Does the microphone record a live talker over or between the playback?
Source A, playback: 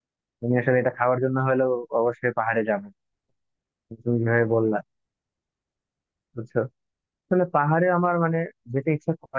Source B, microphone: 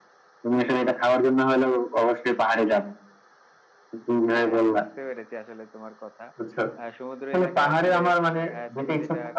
Yes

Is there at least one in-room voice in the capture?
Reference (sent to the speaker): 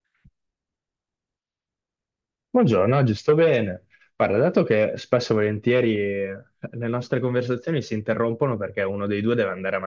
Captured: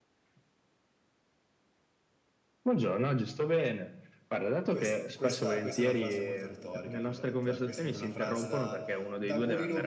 Yes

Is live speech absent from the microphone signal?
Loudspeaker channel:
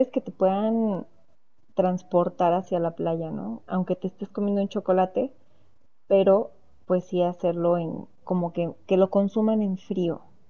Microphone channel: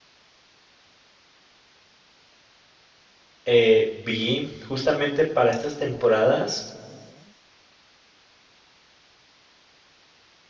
No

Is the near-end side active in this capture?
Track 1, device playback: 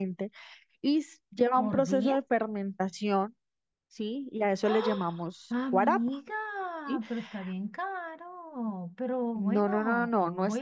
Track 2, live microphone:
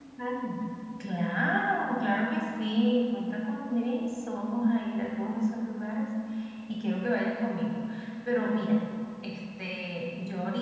Yes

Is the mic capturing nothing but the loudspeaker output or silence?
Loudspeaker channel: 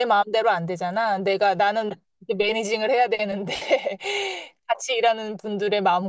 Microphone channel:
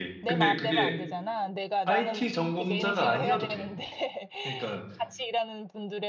No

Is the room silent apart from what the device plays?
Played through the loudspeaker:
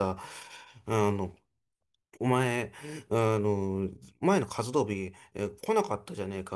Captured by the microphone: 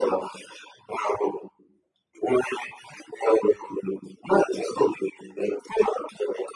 Yes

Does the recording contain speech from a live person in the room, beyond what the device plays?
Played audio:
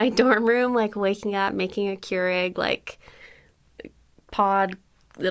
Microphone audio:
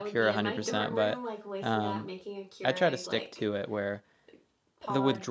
Yes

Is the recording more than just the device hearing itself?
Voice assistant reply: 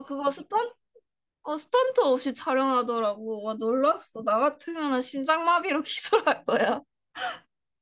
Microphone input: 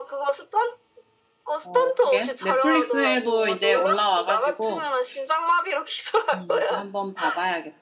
Yes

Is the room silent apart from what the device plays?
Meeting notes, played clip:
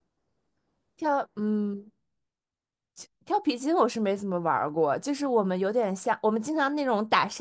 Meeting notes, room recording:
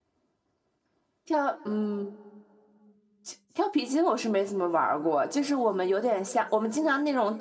Yes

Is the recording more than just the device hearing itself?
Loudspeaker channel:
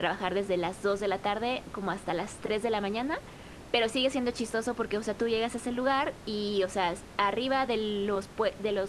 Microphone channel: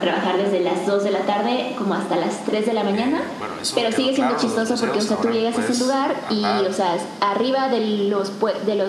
Yes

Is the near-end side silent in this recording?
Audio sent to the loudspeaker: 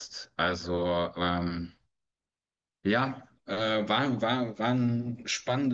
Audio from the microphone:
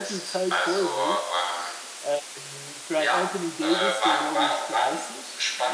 No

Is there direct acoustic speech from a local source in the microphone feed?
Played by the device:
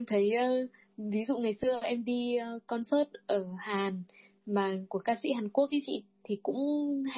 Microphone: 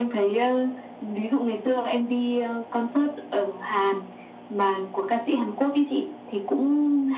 No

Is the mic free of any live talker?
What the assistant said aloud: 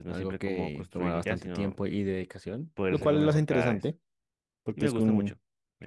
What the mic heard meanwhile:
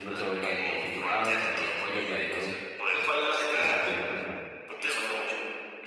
No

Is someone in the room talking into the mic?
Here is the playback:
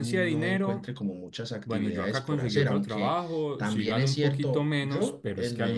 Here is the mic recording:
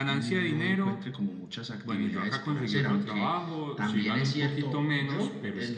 No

